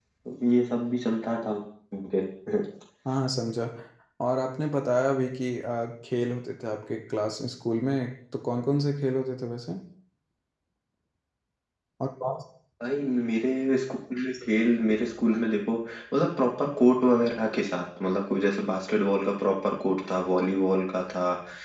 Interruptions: none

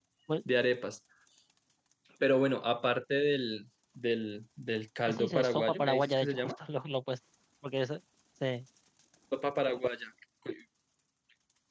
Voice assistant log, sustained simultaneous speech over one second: present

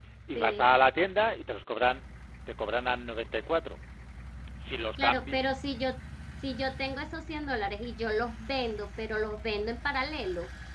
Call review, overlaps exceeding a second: none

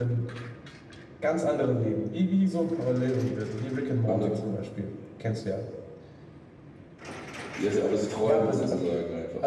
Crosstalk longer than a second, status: none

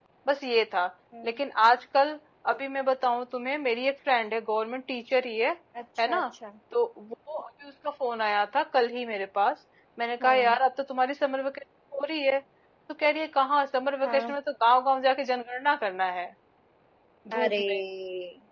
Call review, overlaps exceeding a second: none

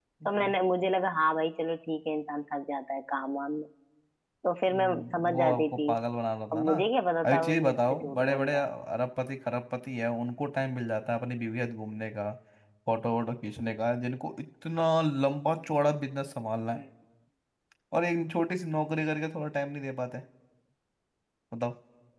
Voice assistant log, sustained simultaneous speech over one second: present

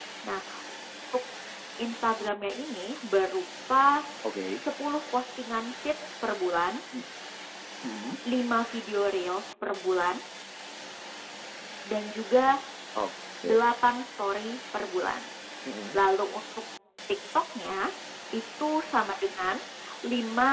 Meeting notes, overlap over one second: none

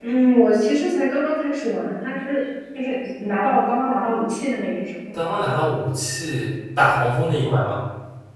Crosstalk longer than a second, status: none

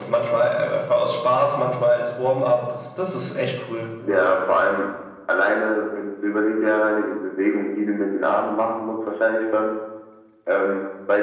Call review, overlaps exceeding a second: none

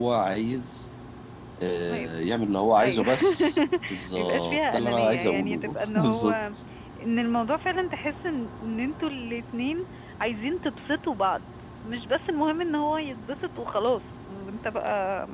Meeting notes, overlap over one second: present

